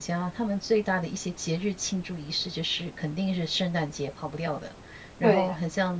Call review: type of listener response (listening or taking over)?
listening